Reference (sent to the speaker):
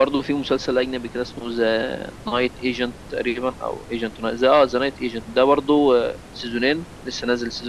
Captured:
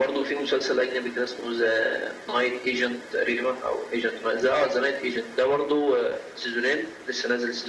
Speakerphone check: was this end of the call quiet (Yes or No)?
Yes